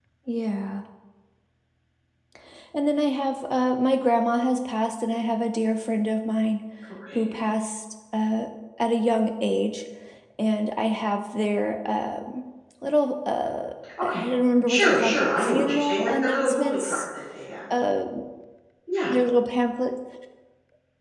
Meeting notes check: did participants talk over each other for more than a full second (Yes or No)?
Yes